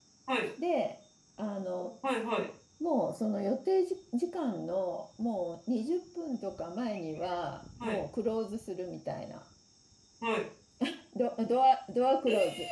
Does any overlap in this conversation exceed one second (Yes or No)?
No